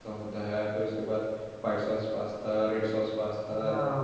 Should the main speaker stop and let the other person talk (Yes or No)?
Yes